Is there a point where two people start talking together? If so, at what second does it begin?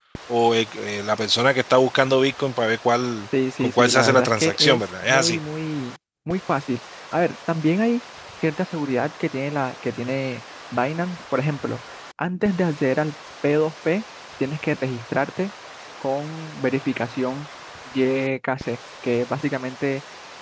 3.6 s

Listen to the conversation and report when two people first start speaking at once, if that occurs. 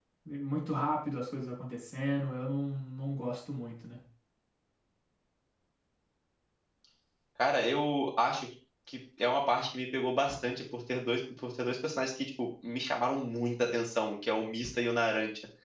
none

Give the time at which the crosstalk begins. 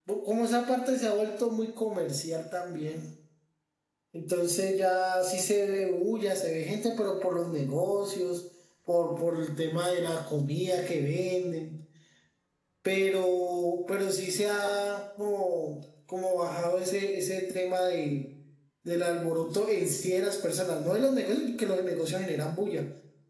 none

